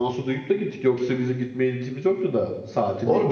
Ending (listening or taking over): taking over